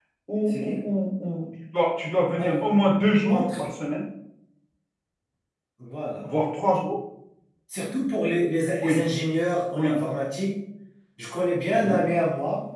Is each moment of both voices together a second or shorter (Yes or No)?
Yes